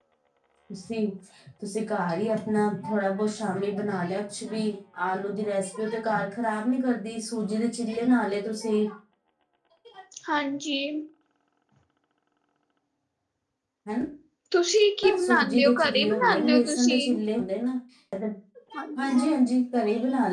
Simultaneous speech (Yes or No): Yes